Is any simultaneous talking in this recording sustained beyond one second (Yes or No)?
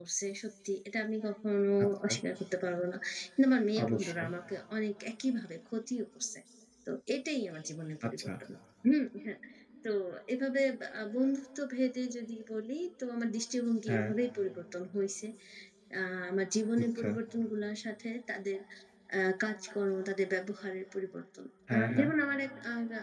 No